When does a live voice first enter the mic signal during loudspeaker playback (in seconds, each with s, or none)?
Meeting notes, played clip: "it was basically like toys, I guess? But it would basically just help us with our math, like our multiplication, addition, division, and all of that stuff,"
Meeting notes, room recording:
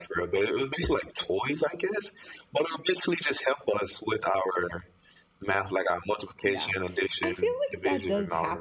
6.4 s